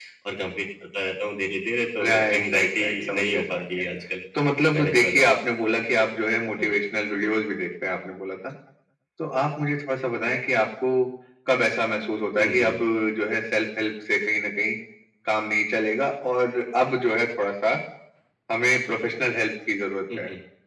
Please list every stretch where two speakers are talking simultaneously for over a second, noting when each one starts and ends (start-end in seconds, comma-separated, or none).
2.0-3.6